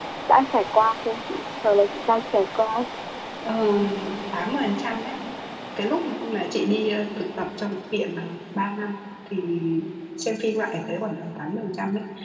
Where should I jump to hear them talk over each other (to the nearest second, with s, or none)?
none